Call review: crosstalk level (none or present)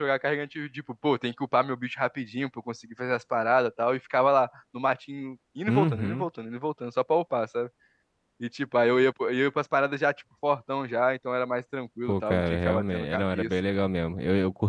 present